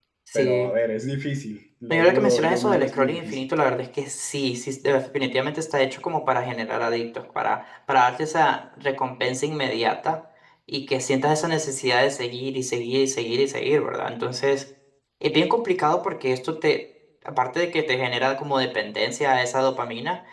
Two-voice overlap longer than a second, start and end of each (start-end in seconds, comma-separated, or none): 1.9-3.5